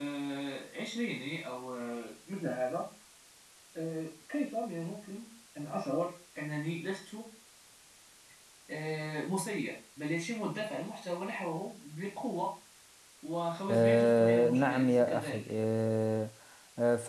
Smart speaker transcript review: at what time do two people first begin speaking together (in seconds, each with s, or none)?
13.7 s